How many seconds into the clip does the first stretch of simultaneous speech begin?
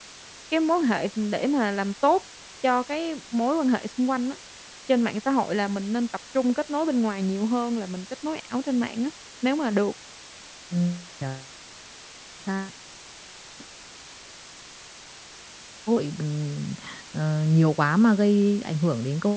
none

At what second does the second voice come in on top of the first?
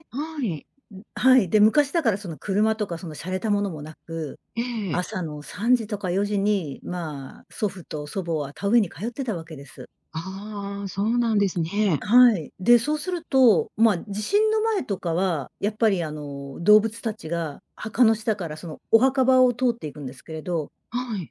none

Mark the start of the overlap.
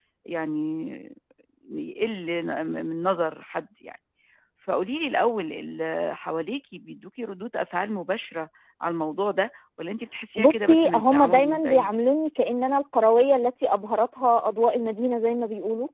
10.4 s

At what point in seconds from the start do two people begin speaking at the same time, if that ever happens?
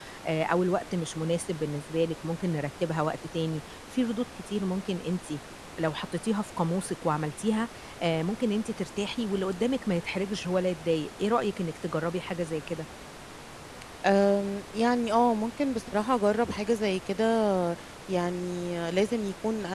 none

